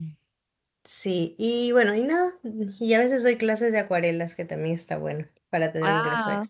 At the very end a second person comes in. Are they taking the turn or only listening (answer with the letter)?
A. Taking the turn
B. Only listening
A